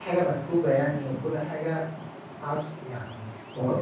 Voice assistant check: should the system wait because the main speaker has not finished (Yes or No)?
No